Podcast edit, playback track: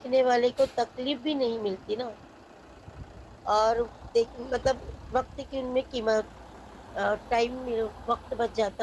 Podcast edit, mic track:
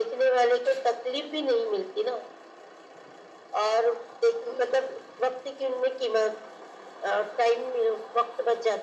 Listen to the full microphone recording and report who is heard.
echo only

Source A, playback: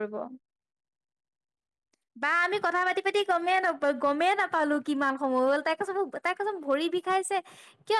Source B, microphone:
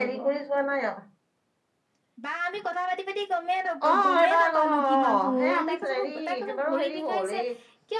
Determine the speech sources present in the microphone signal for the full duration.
both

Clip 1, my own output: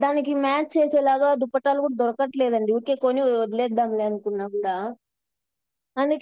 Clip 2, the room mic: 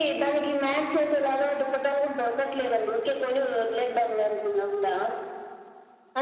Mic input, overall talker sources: echo only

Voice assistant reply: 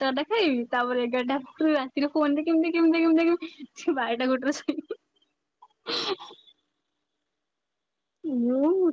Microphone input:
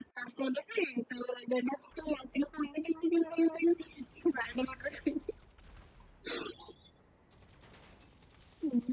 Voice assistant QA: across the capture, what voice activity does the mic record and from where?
echo only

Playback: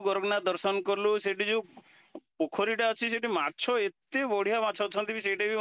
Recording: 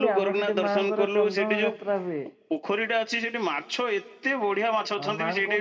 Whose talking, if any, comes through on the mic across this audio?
both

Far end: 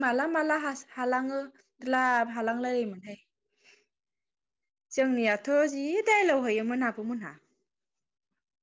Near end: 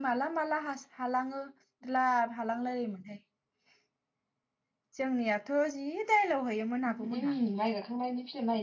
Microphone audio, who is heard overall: both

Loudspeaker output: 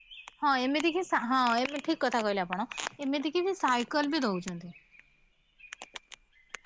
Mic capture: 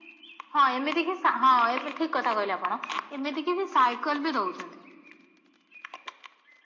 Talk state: echo only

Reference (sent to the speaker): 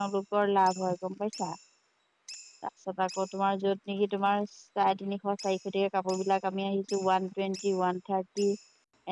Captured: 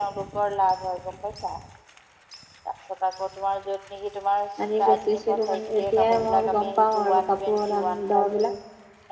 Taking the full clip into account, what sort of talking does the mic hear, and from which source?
both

